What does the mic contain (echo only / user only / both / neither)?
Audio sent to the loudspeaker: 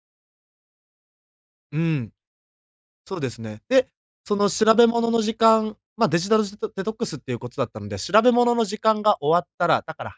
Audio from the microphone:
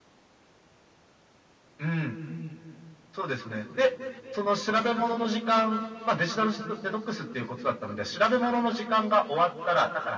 echo only